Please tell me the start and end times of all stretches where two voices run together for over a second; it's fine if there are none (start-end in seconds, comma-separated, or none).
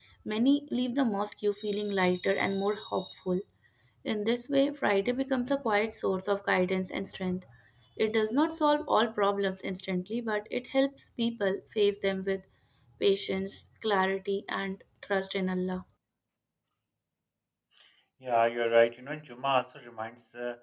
none